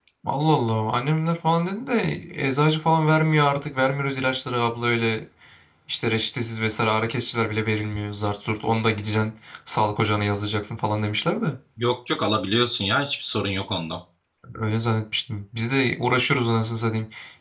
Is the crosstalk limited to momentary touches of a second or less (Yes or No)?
Yes